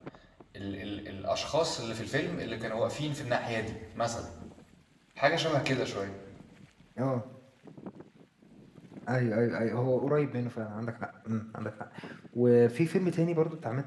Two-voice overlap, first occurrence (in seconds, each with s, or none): none